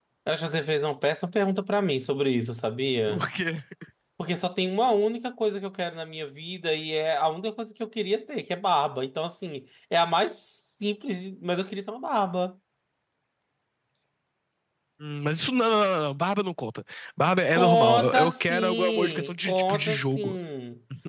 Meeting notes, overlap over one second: present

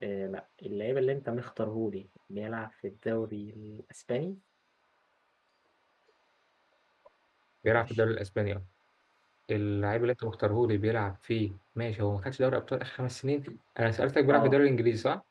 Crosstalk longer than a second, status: none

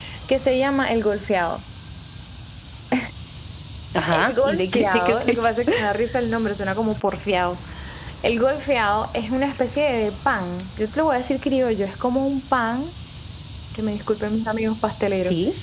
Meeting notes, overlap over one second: present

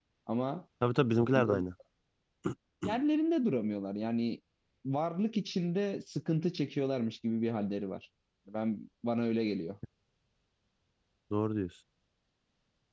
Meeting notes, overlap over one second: none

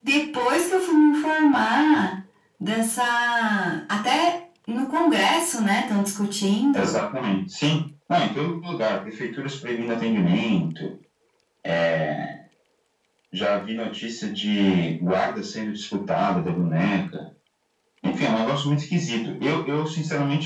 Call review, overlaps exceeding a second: none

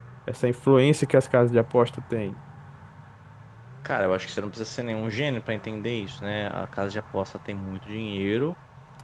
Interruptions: none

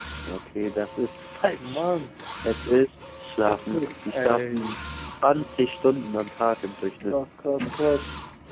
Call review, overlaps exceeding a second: present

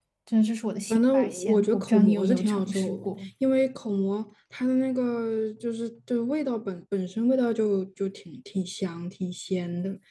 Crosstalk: present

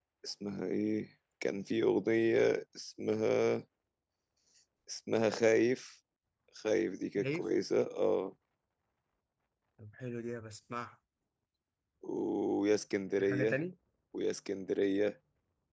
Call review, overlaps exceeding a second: none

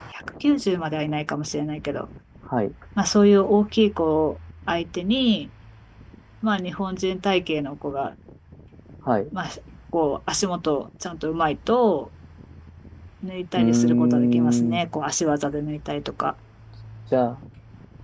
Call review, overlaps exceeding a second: present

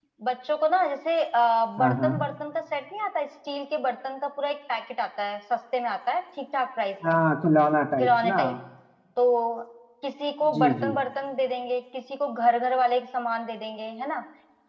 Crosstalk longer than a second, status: none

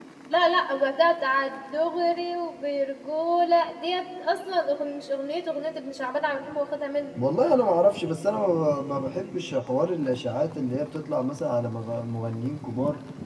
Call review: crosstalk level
none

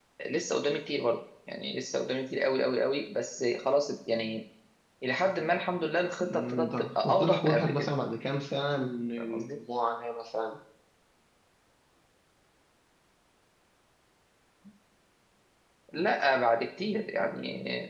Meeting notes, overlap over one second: present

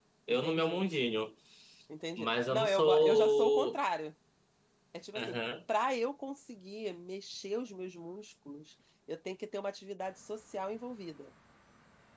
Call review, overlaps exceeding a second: present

